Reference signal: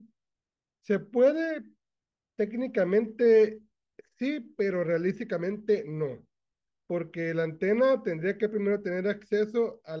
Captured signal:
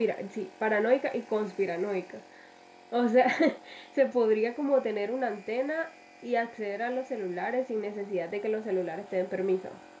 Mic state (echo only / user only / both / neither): user only